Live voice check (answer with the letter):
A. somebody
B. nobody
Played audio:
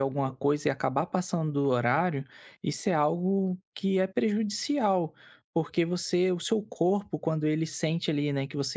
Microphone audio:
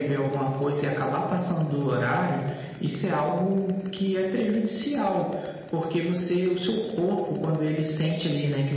B